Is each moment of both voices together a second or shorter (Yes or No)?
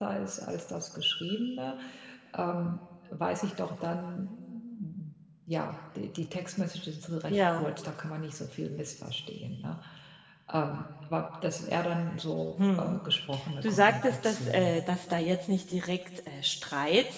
No